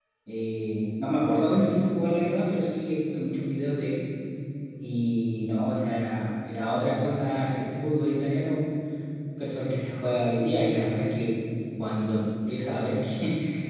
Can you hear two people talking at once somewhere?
No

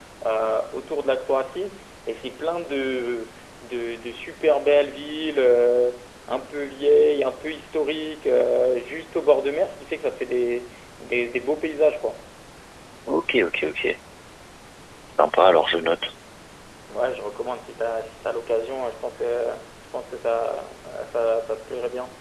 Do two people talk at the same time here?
No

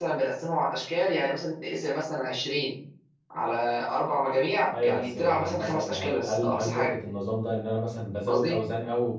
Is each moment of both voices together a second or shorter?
No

